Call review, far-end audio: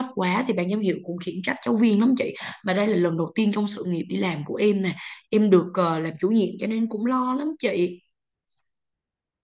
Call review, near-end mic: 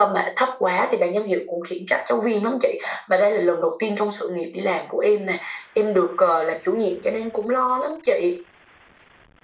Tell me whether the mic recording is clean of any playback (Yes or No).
No